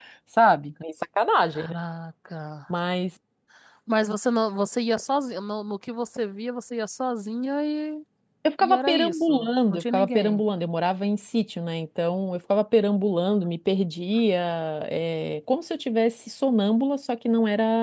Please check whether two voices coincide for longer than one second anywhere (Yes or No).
Yes